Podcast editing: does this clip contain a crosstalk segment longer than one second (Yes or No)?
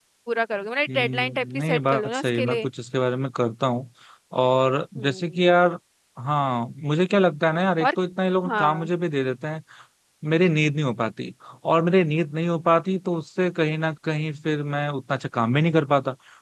Yes